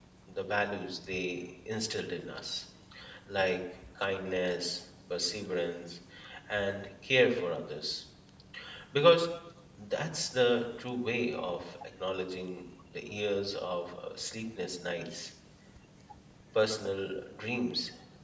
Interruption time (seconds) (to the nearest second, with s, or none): none